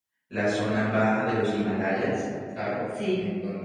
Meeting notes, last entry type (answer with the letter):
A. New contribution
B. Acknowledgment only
B